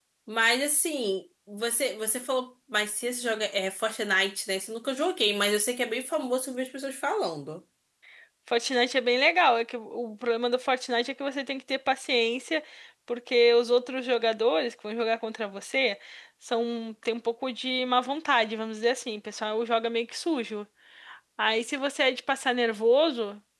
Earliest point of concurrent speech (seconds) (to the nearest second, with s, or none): none